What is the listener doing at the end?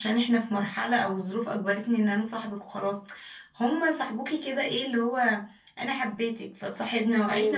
listening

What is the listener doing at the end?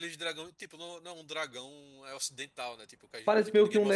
taking over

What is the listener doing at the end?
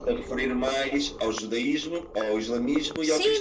taking over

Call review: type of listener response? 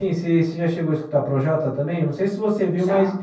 listening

